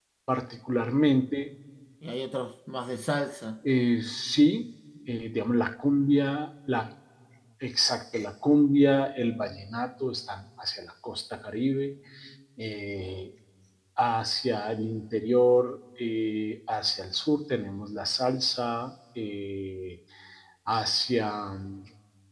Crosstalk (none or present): none